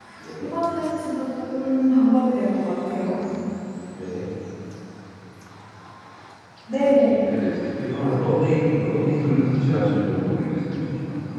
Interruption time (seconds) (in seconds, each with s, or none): none